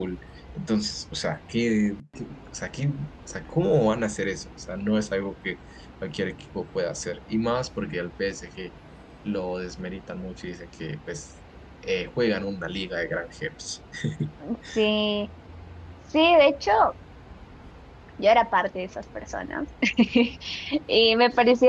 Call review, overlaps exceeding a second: none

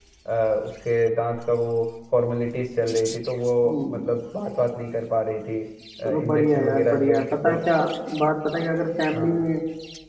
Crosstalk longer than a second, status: present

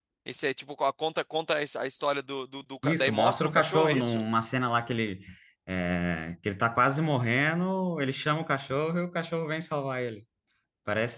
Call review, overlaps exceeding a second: present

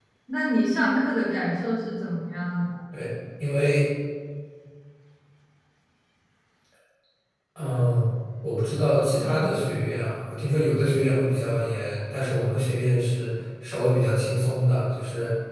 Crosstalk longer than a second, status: none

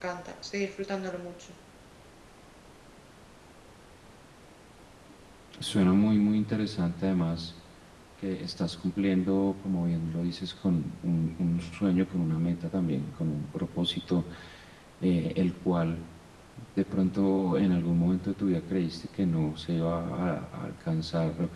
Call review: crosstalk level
none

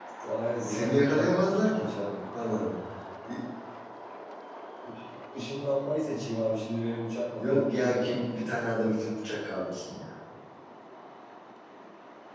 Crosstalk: present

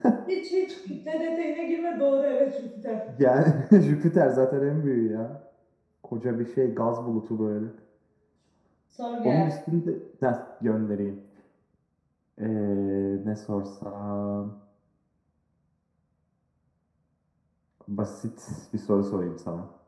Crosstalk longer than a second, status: none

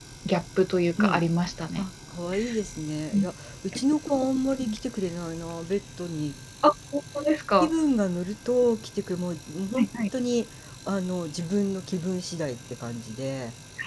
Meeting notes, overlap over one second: none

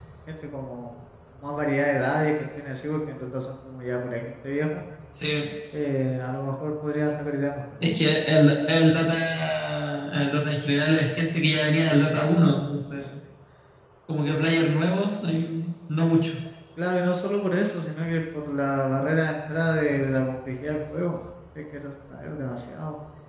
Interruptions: none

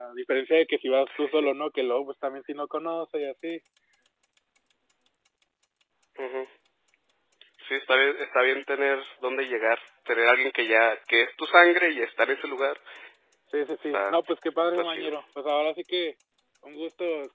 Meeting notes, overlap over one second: none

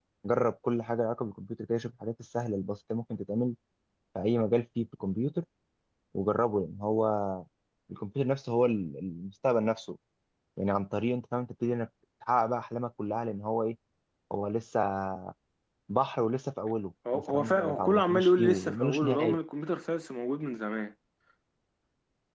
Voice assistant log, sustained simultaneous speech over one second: present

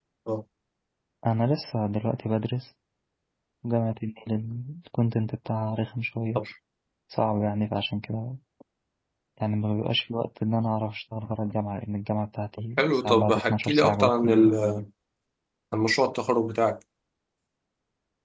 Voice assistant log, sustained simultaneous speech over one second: present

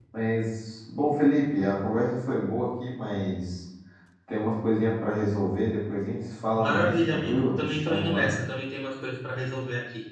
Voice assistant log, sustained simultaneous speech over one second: present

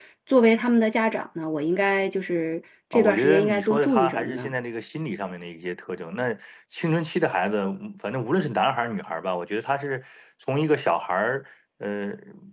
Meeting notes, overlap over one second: present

